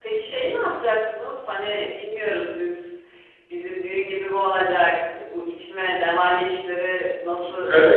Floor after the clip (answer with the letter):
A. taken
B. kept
A